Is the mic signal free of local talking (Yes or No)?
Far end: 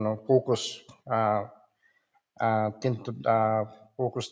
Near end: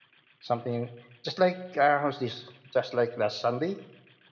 No